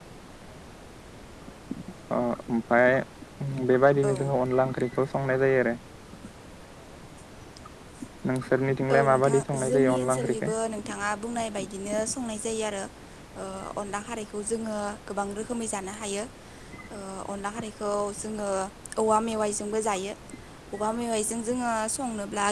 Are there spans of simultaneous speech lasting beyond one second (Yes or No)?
Yes